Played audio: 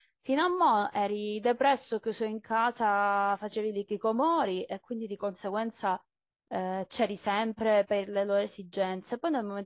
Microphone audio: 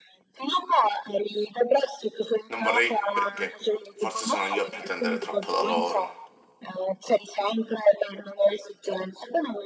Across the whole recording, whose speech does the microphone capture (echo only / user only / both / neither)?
both